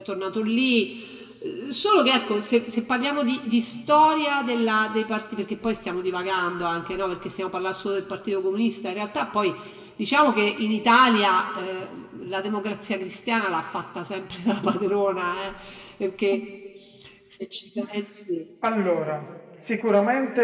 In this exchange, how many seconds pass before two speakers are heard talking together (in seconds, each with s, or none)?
none